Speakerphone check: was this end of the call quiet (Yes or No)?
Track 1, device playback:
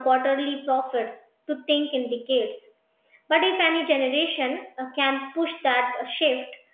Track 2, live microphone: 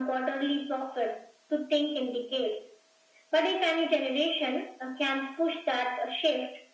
Yes